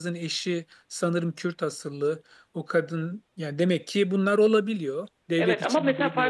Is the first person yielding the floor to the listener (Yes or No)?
Yes